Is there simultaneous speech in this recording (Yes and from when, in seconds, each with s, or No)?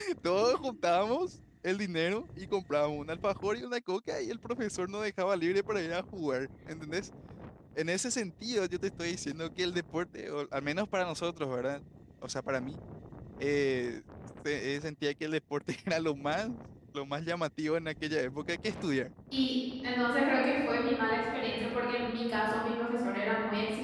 No